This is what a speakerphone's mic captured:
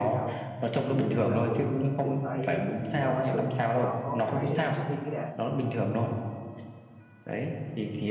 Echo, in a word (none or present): present